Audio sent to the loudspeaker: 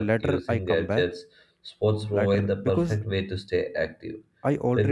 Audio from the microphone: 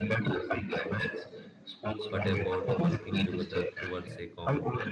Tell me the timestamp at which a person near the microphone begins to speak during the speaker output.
2.1 s

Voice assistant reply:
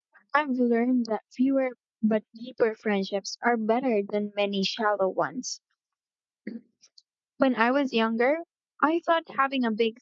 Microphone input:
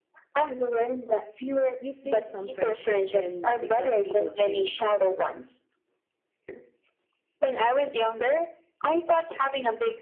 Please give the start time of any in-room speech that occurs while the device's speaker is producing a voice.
1.8 s

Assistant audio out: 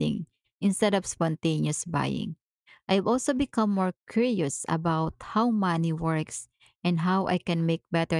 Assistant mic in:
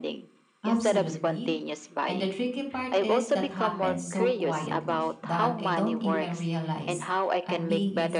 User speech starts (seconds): 0.6 s

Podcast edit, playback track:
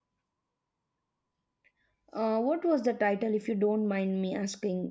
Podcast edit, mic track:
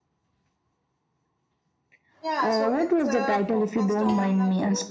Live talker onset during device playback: 2.2 s

